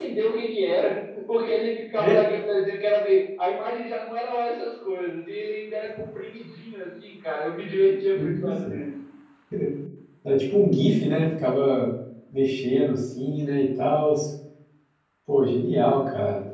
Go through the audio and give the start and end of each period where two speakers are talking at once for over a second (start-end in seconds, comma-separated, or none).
none